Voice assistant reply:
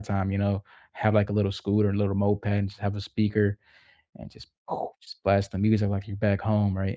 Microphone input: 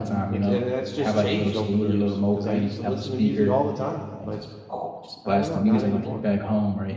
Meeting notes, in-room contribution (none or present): present